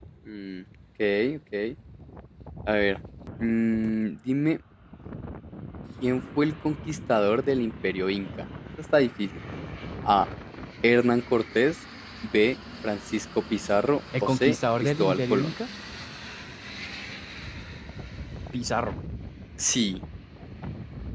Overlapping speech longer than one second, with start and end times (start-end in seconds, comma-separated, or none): 14.2-15.5